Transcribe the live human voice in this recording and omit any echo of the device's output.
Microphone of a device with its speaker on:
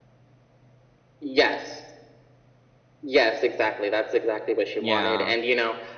yeah,

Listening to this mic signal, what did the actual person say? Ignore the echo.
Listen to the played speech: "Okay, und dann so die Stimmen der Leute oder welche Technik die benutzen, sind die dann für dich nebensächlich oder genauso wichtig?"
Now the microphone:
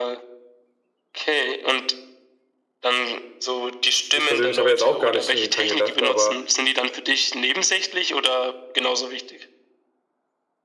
ich persönlich habe ja jetzt auch gar nicht irgendwie dran gedacht, aber

